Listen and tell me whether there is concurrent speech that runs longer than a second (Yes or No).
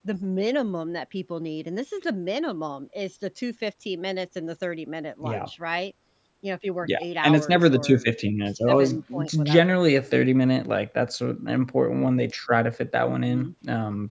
Yes